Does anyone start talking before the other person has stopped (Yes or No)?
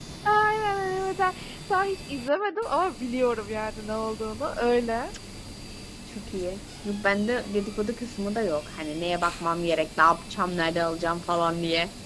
No